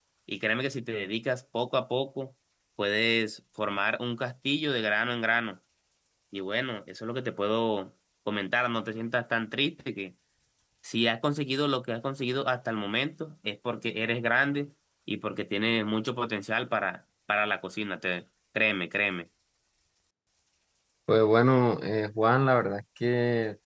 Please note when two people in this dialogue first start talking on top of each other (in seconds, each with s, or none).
none